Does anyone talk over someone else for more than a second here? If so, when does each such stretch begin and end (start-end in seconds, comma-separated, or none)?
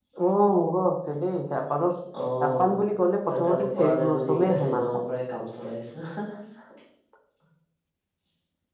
3.3-4.8